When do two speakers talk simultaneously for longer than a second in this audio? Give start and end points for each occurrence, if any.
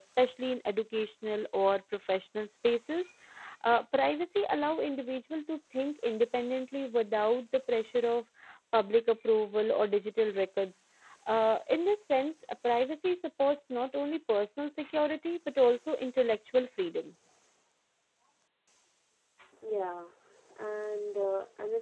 none

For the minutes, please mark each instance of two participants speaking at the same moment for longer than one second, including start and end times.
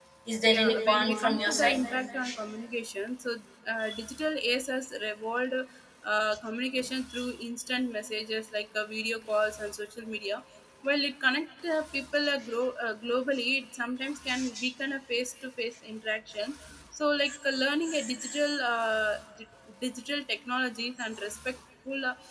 0.5-1.8

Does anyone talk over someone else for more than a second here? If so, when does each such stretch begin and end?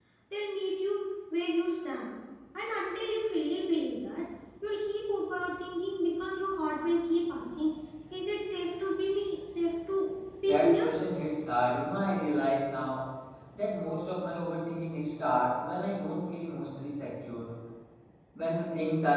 none

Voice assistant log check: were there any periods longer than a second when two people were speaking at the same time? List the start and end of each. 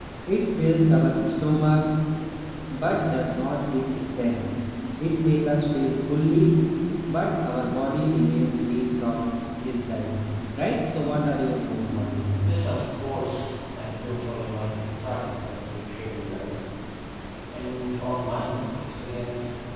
none

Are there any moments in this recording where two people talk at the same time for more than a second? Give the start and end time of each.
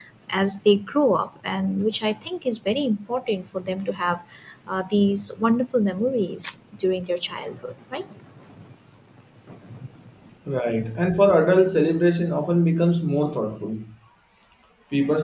none

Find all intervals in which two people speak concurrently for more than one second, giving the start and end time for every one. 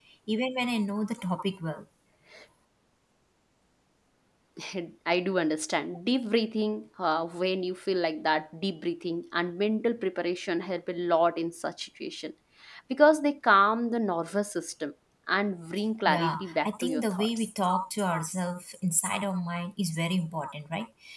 16.1-17.5

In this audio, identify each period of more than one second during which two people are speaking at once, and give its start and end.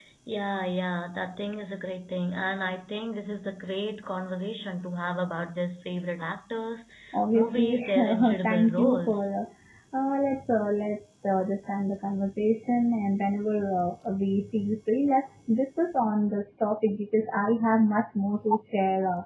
7.3-9.3

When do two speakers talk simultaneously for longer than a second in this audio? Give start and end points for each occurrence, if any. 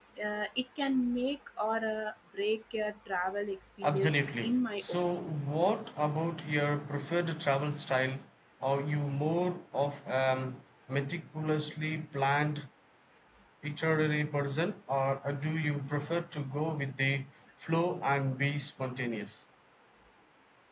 3.8-5.4

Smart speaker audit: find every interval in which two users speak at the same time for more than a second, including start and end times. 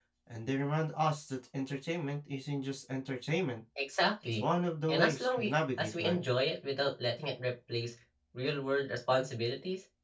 4.9-6.2

